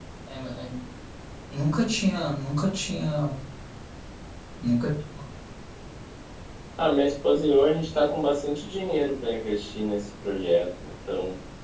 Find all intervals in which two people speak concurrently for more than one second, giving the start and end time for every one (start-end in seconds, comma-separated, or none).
none